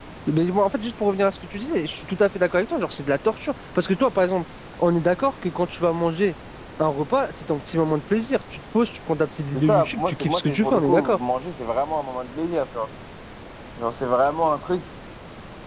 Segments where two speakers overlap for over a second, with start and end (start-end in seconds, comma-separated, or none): 9.5-11.2